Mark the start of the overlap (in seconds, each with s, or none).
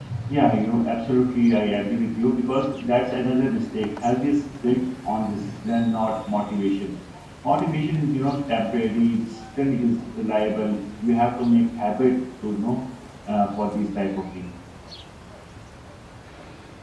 none